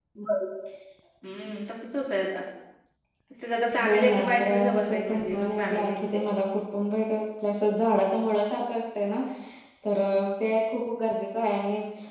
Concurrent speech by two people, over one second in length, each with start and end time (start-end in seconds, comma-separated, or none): 3.8-6.0